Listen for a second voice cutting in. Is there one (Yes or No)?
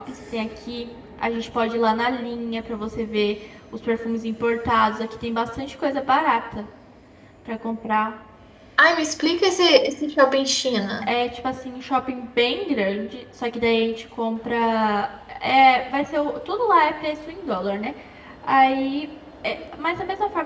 No